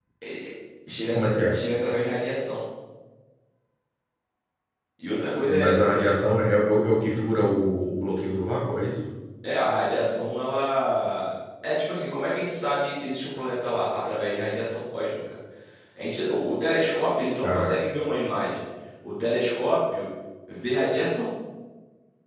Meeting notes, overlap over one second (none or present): none